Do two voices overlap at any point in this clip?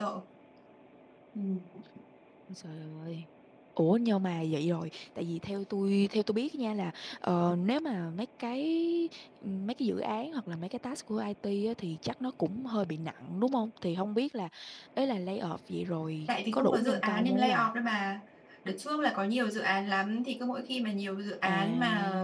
Yes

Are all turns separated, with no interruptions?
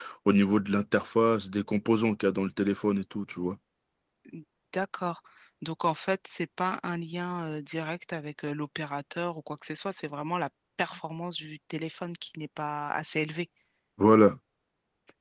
Yes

